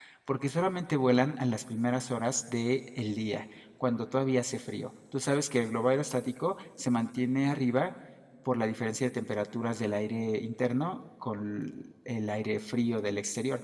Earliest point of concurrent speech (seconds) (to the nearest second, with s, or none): none